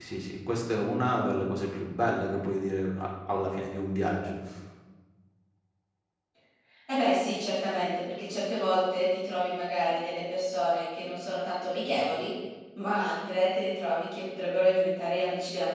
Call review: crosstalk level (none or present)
none